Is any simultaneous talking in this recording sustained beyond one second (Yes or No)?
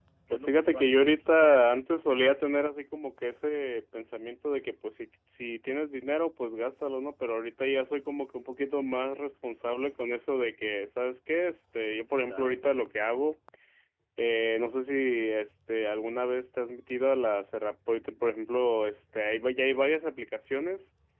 Yes